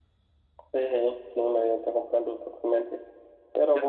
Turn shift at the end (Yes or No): No